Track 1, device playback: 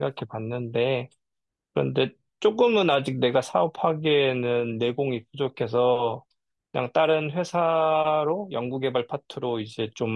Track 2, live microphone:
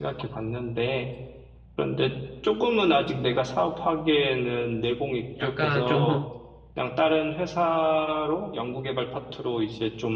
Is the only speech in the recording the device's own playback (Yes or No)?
No